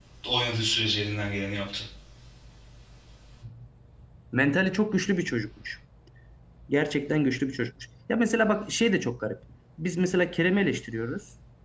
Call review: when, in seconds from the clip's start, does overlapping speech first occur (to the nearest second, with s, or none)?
none